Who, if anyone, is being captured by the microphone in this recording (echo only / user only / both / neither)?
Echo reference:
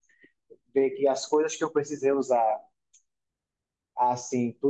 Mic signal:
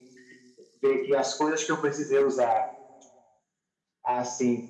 echo only